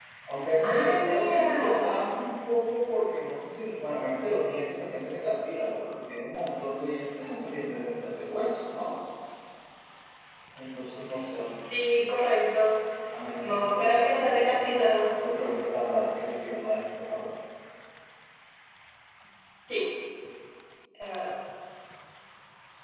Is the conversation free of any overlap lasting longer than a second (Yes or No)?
No